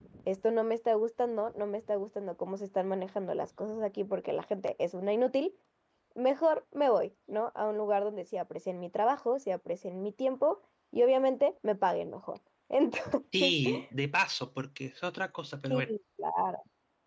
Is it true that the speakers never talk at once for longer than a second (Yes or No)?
Yes